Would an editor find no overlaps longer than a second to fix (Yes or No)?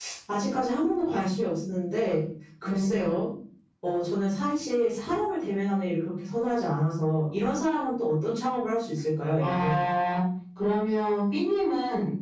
Yes